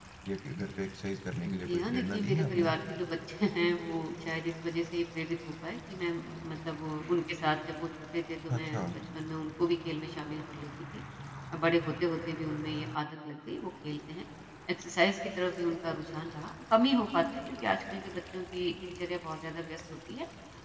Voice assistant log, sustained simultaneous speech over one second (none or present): present